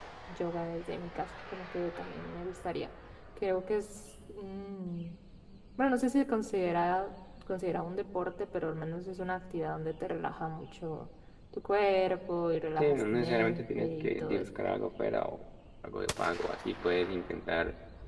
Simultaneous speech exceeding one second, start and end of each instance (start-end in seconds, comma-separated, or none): 12.8-14.4